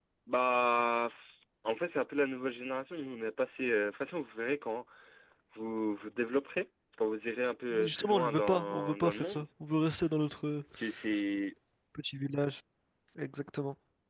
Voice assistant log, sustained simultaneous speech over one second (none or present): present